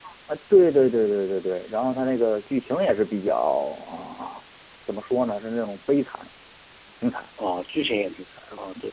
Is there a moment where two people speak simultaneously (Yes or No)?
No